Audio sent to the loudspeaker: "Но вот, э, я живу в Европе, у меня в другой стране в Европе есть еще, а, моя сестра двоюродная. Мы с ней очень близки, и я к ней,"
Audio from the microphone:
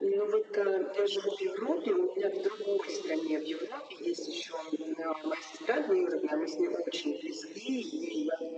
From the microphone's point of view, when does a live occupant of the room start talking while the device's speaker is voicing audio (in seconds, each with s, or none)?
none